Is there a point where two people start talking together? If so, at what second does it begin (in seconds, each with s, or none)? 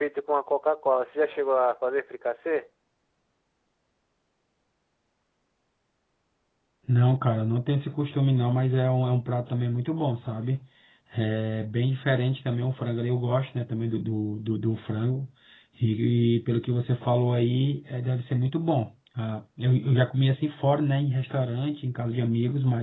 none